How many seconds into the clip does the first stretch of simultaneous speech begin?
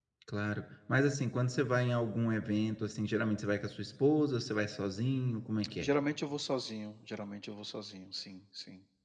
none

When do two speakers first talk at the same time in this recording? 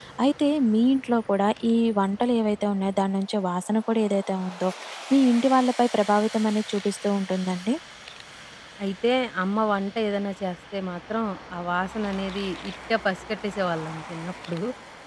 none

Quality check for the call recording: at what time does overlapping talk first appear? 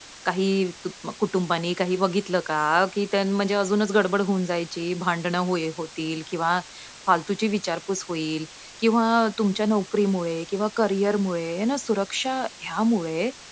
none

